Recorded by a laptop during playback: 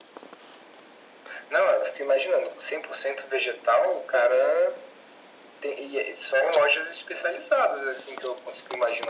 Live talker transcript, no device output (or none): none